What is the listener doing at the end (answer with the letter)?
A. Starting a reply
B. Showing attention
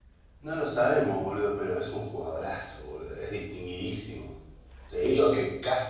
B